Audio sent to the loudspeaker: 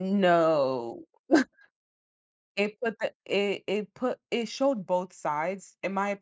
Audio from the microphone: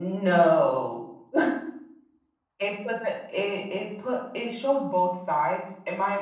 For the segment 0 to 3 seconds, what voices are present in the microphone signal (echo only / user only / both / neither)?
echo only